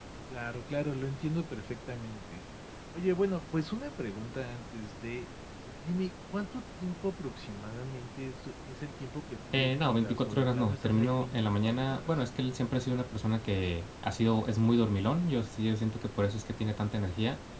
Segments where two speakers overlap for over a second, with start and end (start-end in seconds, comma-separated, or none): 9.5-12.2